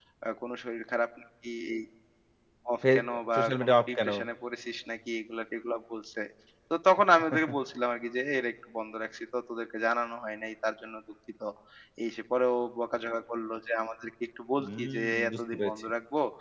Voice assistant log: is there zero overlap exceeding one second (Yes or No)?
No